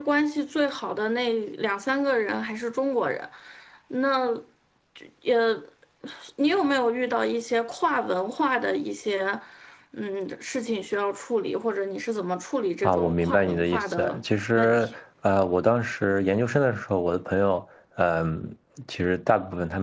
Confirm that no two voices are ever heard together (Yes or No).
No